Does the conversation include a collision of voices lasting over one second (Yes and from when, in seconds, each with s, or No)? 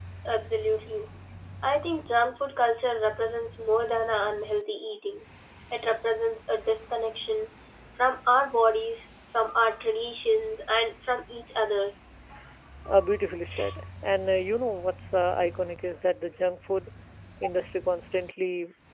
No